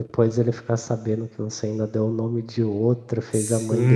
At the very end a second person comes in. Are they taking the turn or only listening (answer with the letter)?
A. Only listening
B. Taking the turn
B